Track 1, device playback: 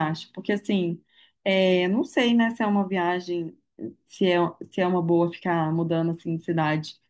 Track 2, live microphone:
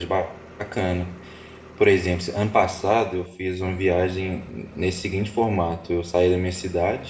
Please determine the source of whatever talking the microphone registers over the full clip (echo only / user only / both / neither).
user only